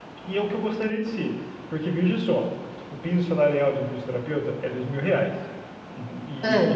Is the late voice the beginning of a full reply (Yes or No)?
No